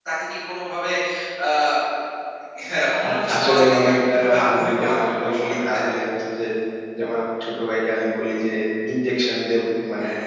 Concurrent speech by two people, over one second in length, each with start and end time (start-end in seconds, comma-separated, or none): 3.1-5.6